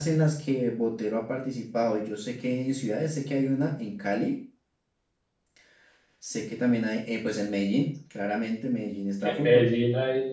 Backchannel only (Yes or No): No